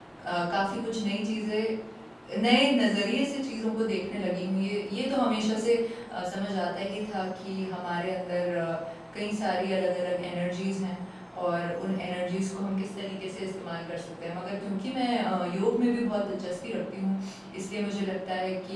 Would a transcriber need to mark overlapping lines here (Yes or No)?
No